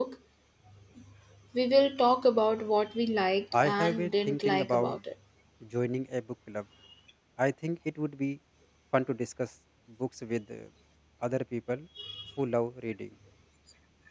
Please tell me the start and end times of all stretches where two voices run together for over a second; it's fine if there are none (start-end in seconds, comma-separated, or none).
3.5-4.9